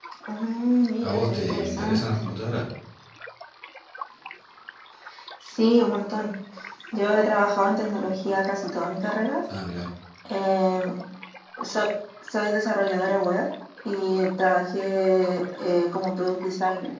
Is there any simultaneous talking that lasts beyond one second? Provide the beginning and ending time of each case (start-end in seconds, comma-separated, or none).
1.0-2.3